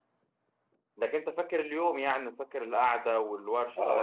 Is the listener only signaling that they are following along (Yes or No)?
No